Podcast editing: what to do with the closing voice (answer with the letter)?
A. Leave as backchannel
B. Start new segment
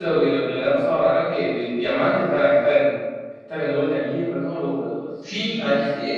B